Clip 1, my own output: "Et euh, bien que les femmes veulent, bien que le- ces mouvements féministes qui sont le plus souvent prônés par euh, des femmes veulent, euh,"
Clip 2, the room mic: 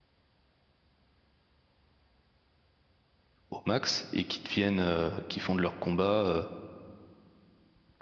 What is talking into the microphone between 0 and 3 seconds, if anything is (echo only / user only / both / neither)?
neither